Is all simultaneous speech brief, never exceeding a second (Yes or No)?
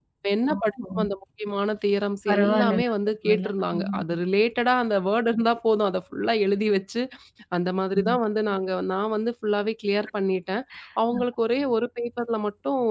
No